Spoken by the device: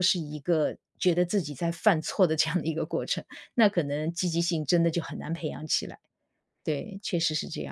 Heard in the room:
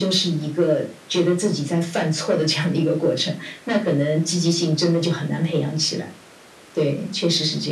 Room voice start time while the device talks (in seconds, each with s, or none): none